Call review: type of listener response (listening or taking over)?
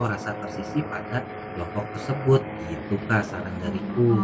taking over